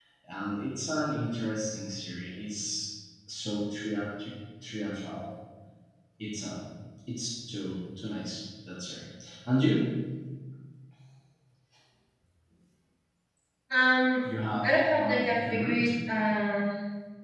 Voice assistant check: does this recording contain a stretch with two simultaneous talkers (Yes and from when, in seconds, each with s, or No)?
Yes, from 14.6 s